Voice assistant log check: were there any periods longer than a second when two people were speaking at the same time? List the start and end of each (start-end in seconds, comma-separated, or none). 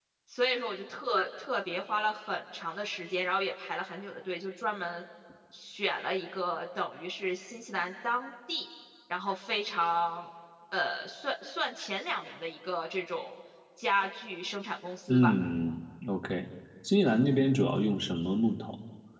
none